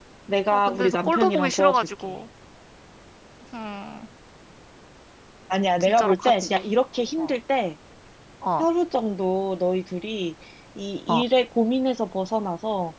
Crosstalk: present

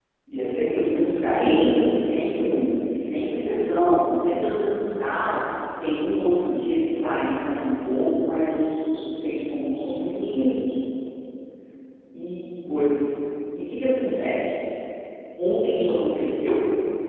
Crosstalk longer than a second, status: none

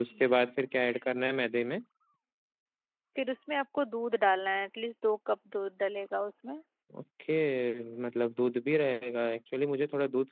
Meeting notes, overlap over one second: none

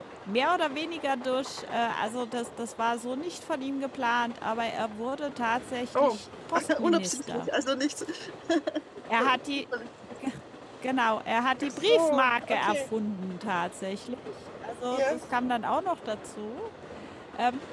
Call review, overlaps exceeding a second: present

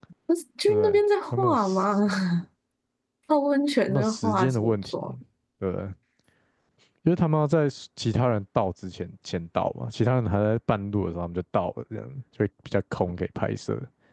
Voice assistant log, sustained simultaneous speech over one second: present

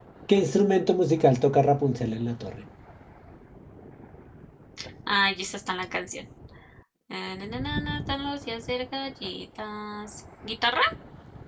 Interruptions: none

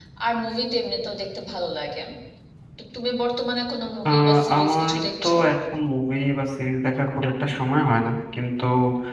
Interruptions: present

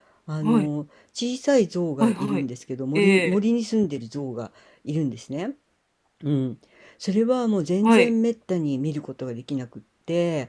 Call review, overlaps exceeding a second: none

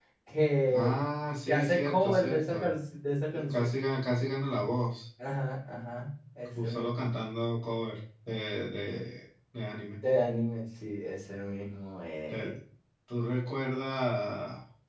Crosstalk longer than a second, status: present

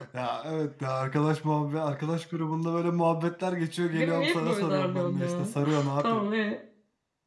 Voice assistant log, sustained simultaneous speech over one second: present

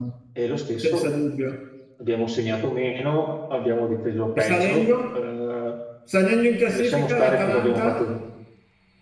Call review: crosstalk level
present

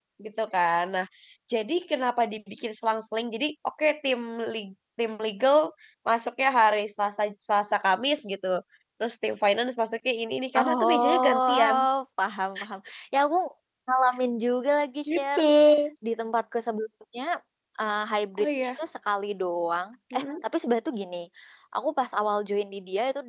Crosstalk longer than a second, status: present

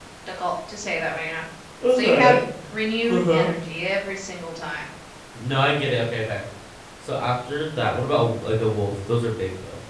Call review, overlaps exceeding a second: none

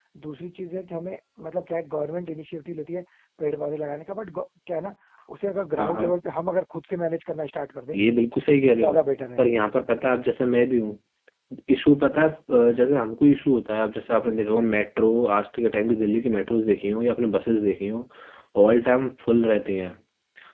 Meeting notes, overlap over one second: none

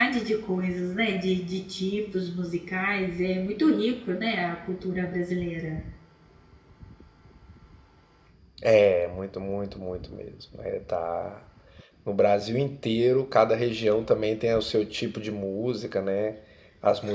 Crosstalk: none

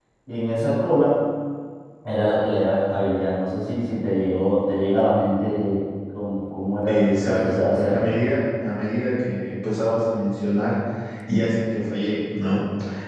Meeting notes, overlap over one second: present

